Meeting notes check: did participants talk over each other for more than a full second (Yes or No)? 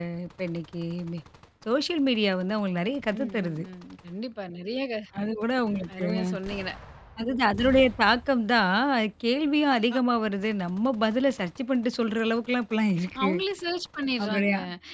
No